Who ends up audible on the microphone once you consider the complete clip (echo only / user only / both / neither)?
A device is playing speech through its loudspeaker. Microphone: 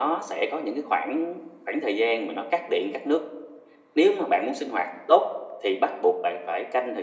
echo only